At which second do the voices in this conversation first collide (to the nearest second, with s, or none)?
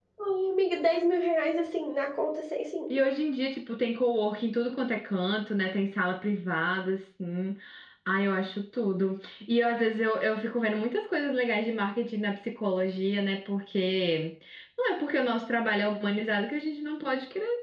none